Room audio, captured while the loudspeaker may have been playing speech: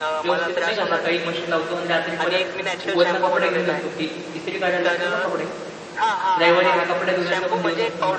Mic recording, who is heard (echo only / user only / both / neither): both